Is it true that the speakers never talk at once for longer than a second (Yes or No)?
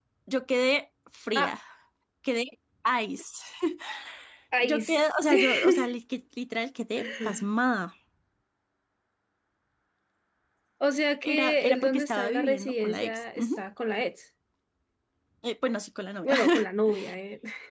No